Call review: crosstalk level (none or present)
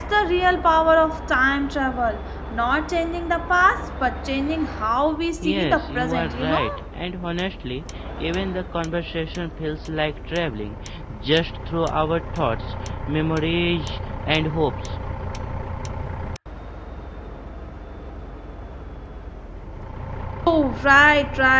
present